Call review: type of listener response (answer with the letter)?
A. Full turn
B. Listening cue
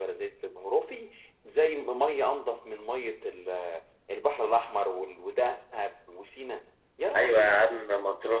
A